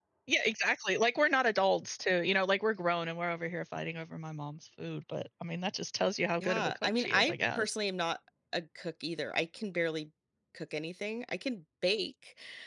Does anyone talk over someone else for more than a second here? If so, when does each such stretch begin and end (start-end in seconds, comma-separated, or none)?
6.4-7.7